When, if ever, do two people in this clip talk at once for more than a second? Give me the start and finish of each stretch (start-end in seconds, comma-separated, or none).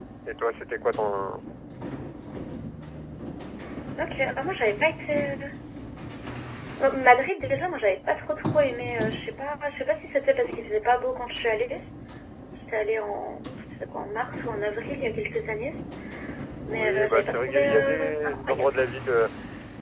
16.7-18.7